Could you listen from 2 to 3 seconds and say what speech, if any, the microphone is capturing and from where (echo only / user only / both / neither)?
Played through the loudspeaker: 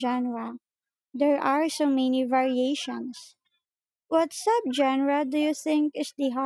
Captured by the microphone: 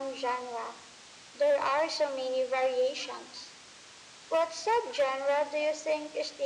echo only